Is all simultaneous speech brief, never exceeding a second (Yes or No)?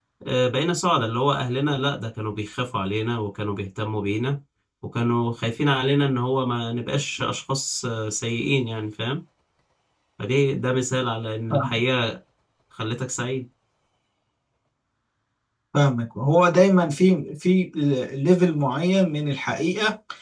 Yes